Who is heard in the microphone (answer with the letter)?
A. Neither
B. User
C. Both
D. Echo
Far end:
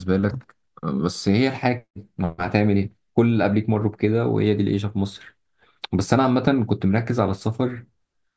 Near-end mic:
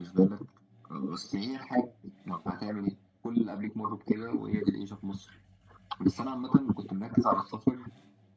D